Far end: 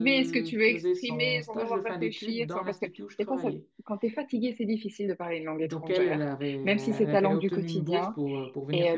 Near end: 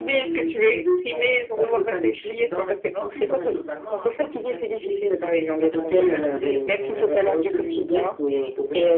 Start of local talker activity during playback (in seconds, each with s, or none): 2.9 s